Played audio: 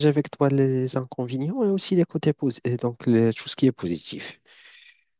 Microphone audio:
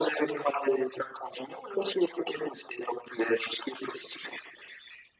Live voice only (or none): none